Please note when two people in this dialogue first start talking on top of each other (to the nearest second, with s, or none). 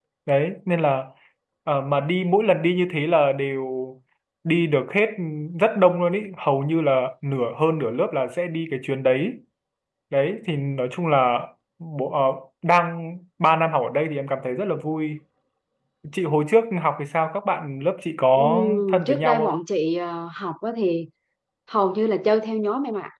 18 s